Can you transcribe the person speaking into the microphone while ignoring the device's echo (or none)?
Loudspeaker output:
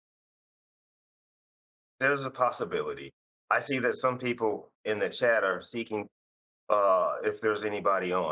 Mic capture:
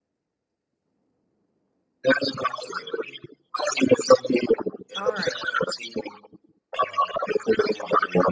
All right.